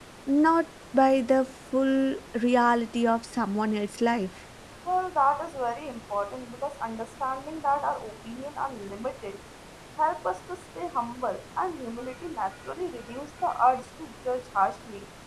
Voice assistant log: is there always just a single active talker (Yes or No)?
Yes